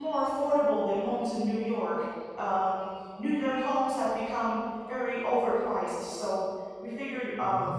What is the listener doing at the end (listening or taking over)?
listening